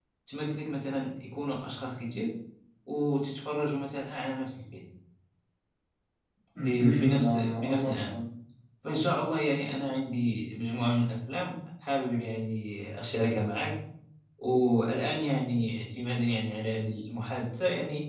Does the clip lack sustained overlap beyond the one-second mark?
No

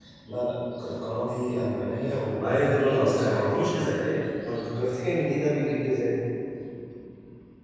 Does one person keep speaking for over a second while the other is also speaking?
Yes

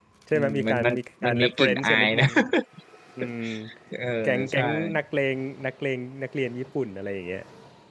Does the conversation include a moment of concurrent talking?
Yes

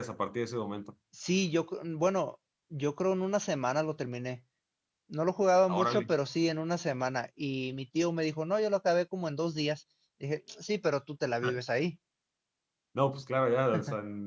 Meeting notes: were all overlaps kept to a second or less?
Yes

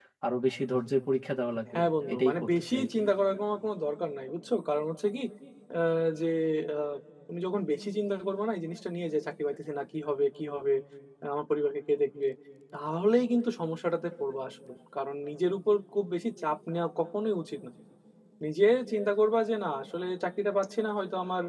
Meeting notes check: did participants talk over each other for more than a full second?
Yes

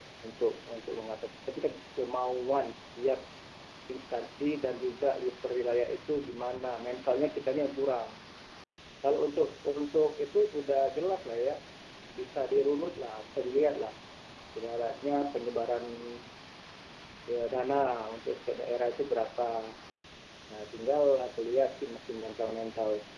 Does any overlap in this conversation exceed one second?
No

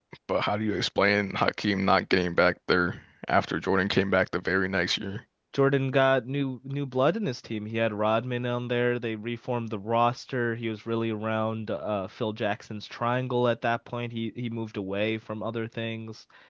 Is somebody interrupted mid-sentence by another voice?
No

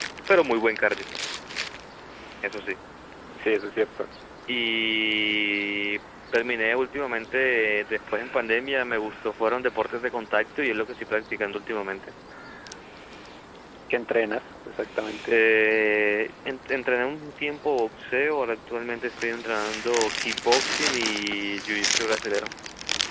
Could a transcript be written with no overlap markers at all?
Yes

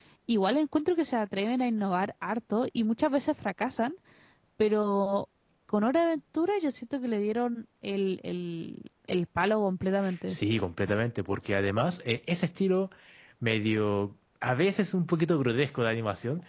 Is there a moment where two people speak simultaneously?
No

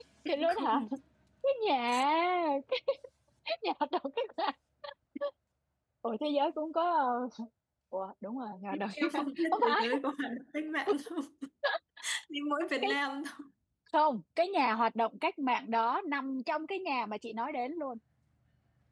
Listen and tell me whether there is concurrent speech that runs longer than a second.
Yes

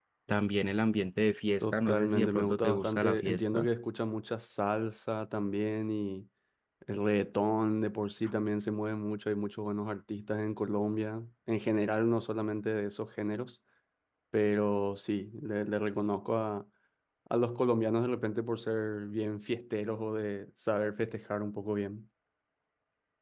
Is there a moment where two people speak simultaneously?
Yes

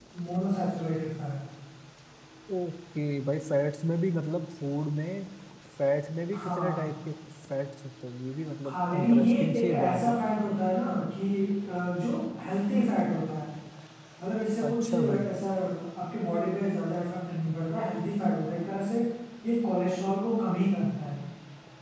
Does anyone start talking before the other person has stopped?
Yes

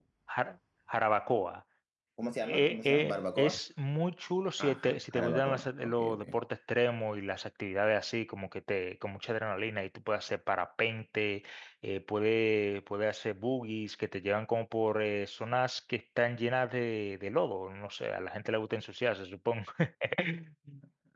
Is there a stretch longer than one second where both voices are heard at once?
Yes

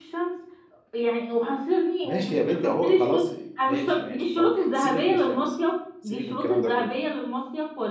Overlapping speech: Yes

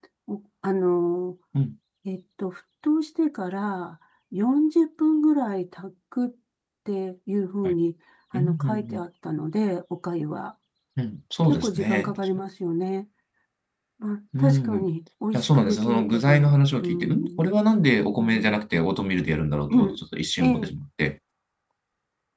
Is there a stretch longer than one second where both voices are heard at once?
Yes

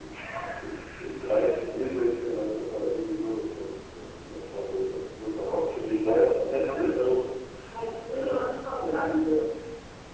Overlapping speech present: Yes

